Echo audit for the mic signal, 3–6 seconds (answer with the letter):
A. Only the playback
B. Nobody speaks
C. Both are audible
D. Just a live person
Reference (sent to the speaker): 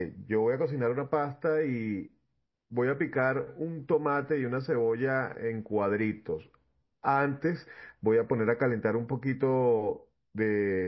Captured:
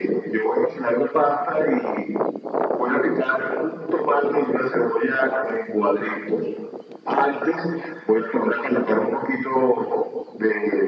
A